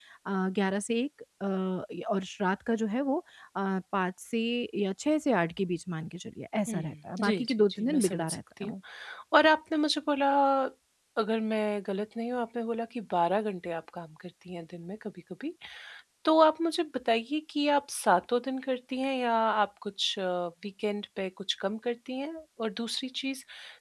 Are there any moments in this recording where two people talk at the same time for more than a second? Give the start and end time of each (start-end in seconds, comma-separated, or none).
7.2-8.7